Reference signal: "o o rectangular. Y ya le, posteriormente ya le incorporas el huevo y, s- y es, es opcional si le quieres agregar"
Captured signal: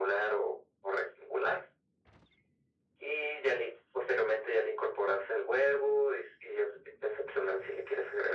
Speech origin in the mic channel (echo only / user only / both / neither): echo only